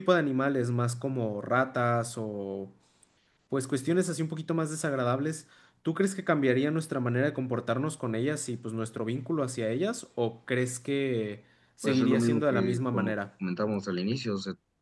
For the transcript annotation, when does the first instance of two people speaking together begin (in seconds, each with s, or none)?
11.8 s